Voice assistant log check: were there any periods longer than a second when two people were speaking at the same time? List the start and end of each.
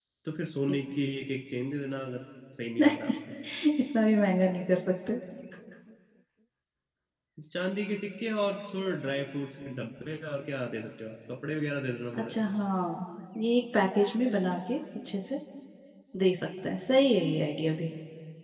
none

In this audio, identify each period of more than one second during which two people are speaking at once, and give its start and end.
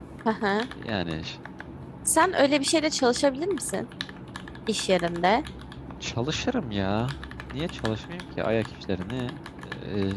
none

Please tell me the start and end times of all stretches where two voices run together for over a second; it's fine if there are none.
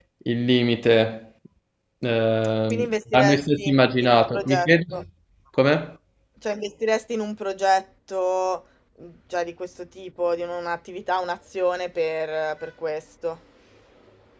2.7-5.0

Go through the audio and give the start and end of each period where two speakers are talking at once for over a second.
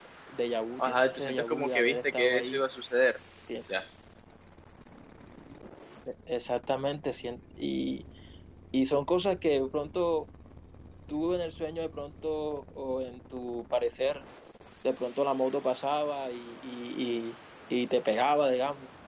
0.8-2.6

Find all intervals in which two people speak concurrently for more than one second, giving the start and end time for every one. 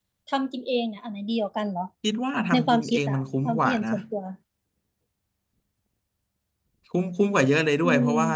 2.5-3.8

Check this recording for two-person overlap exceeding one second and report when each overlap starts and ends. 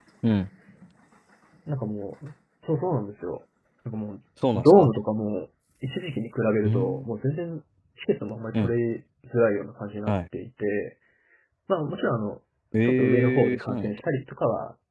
12.8-14.1

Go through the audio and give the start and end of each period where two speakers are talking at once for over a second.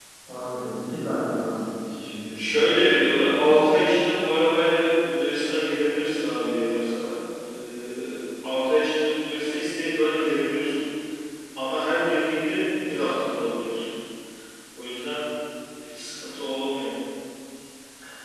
2.3-3.8

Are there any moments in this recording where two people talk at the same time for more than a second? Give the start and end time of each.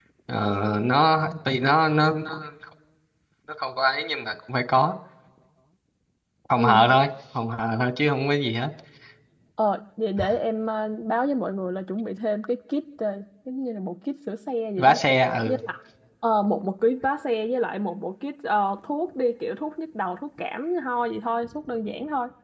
none

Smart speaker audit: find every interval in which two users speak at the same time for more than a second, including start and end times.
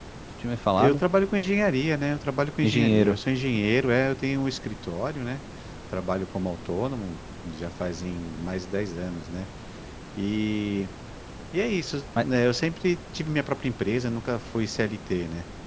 none

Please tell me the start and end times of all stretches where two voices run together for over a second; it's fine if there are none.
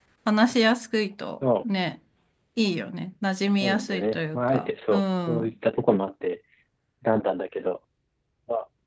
3.6-5.5

